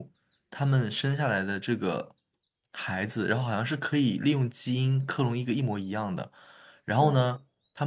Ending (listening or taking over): listening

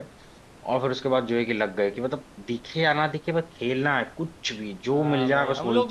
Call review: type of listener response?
taking over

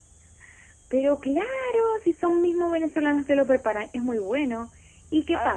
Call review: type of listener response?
taking over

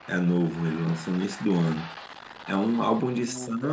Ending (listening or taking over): listening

